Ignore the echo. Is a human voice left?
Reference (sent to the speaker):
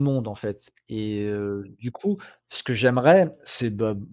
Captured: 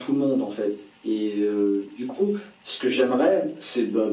No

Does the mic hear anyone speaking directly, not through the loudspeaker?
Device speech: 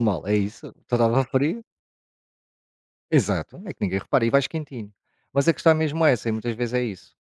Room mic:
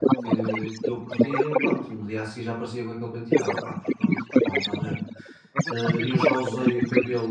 Yes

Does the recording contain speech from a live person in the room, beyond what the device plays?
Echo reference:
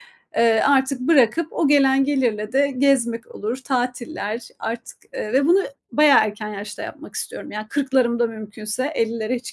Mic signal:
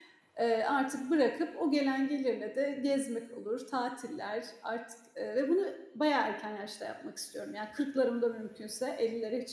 No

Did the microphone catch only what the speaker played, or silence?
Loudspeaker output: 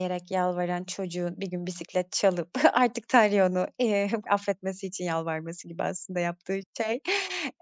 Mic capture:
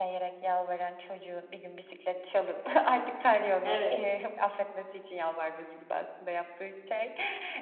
No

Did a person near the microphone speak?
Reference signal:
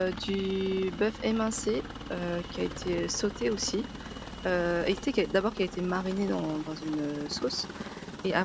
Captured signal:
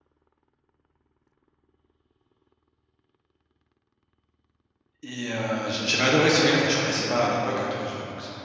Yes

